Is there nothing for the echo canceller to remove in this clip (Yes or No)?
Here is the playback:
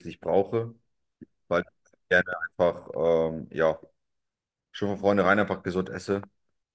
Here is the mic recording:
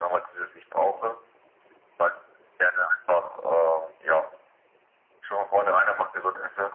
No